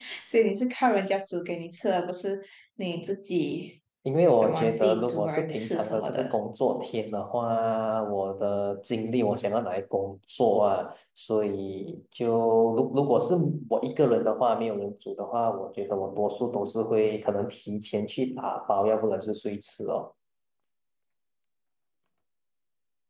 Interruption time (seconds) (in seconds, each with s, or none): 4.4 s